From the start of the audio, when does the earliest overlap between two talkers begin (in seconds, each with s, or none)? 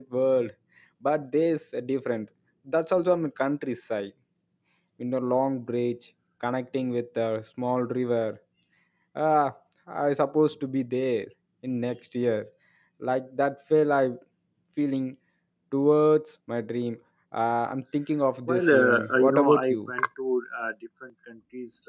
18.5 s